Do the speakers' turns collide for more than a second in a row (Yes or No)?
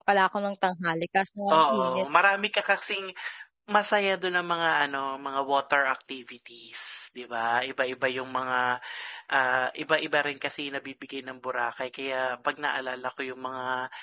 No